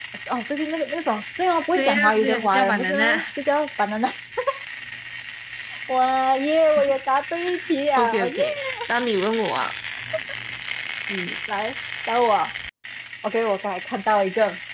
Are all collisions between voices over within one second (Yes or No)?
No